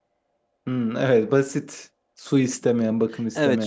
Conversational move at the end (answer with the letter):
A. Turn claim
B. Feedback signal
A